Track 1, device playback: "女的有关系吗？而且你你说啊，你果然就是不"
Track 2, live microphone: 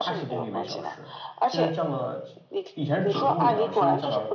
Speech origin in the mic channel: both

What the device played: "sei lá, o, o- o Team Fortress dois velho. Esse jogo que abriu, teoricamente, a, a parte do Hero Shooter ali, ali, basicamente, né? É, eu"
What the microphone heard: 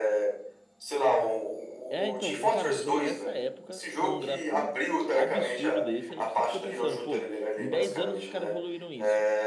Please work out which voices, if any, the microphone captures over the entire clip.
both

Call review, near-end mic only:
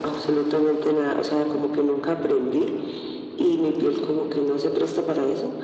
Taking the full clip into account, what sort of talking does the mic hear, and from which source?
echo only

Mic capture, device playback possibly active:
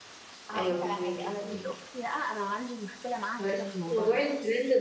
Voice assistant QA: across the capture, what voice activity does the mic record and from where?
both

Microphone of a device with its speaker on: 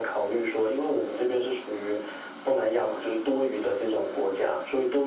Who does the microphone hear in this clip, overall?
echo only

